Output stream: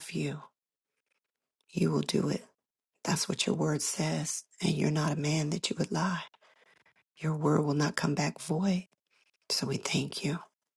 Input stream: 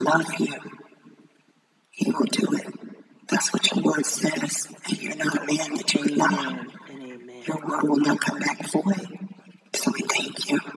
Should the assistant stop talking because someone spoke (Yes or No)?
Yes